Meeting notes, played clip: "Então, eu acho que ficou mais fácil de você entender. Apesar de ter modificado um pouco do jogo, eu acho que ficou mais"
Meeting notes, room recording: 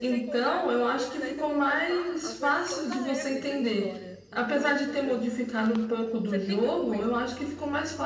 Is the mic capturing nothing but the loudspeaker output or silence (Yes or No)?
No